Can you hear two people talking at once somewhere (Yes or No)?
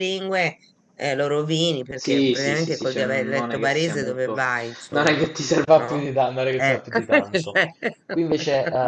Yes